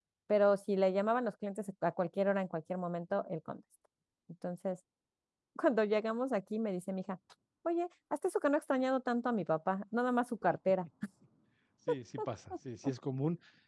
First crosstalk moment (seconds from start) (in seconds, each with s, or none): none